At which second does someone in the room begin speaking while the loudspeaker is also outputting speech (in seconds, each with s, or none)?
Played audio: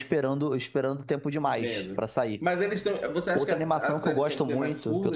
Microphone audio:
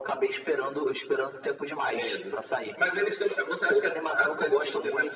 none